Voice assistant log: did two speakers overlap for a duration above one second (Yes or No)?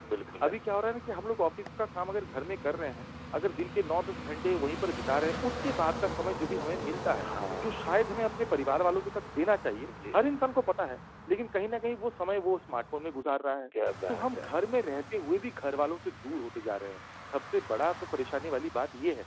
No